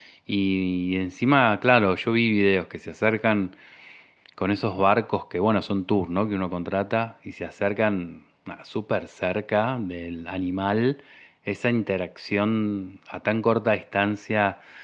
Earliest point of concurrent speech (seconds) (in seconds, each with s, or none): none